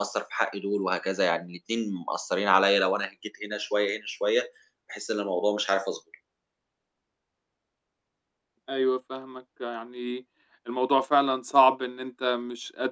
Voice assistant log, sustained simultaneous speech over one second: none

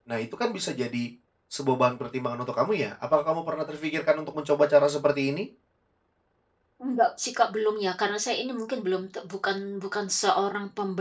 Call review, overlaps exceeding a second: none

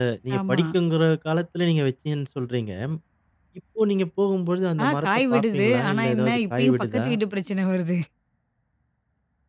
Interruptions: present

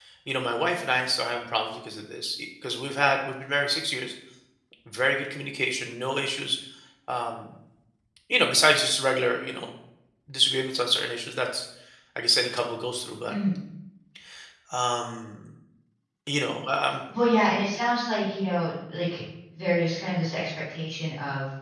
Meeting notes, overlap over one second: none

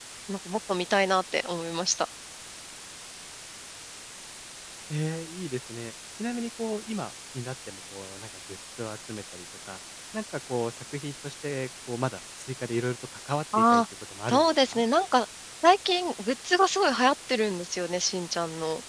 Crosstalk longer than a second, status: none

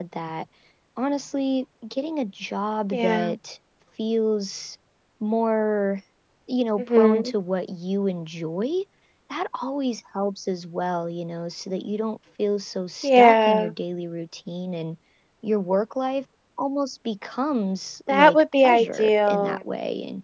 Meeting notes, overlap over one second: present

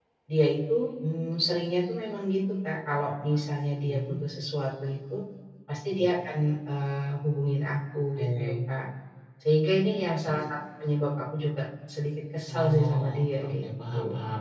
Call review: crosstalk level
present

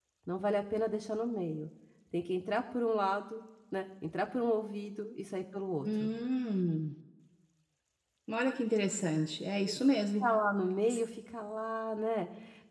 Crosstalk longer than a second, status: none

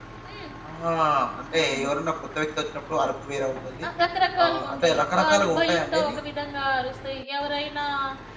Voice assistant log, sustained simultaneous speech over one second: present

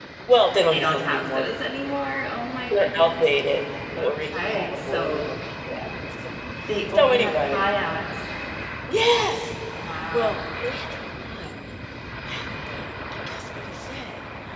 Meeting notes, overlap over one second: present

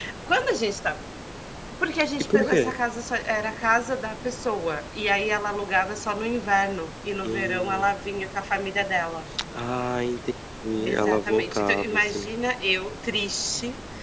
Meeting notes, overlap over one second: present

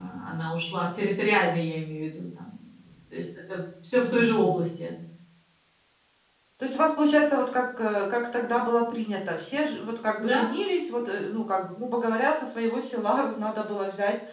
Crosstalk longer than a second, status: none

